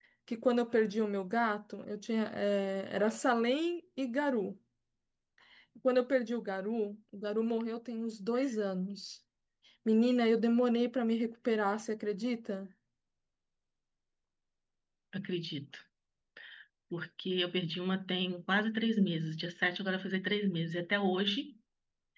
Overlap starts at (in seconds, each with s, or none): none